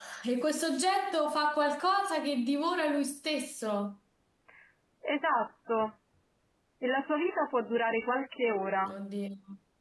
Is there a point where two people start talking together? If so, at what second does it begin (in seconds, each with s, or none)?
none